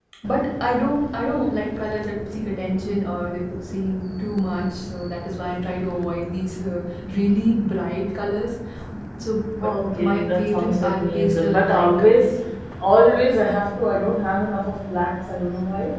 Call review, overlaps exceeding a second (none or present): present